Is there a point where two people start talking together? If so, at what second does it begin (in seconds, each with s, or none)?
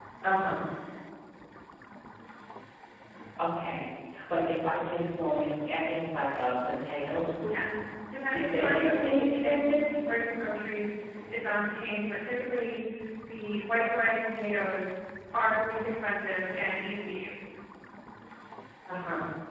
8.3 s